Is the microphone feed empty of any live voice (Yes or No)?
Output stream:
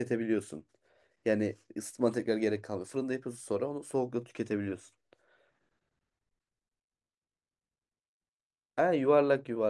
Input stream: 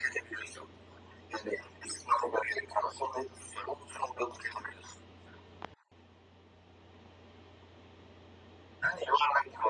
Yes